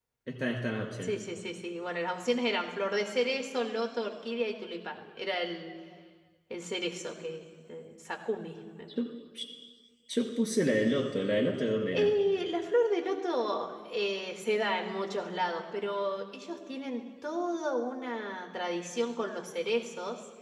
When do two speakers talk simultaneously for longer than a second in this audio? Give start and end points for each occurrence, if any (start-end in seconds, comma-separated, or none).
none